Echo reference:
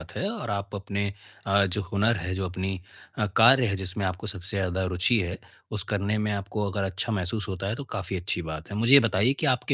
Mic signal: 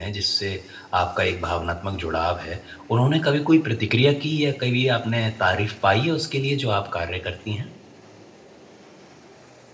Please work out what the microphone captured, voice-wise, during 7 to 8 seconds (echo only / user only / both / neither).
user only